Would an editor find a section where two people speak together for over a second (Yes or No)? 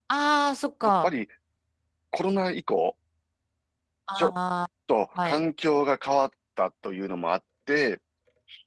No